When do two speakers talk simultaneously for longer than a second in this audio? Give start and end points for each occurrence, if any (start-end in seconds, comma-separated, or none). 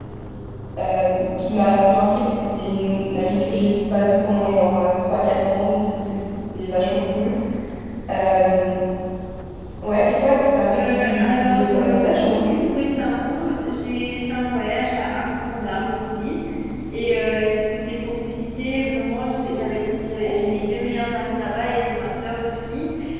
10.7-12.4